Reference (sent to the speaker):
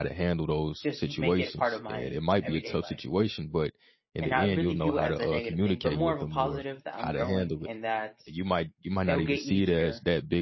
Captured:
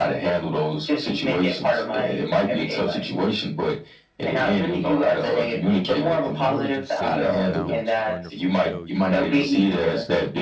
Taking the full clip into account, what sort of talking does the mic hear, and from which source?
both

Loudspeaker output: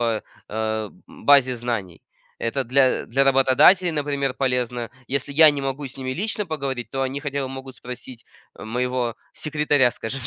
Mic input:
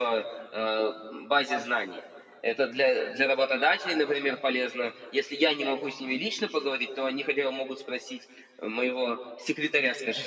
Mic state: echo only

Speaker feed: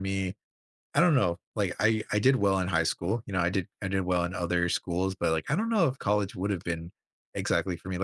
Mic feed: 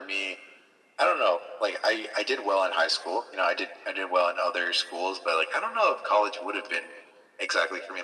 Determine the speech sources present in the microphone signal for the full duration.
echo only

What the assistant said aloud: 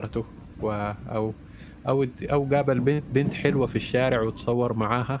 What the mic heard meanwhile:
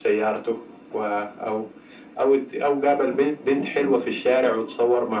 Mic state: echo only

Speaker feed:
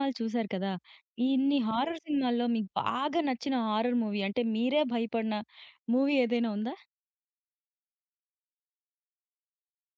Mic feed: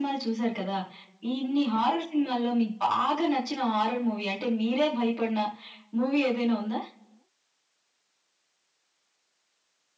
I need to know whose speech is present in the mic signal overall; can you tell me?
echo only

